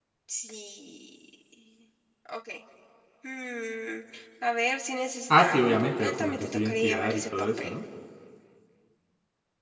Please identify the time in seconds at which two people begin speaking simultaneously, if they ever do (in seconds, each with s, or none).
5.3 s